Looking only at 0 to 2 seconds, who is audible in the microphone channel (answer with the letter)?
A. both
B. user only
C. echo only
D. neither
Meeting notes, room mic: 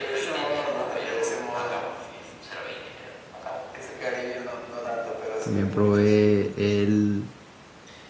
C